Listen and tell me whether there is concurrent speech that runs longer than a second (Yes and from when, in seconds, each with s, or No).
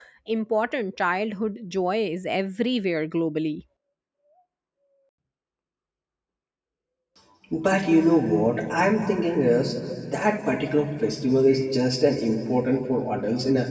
No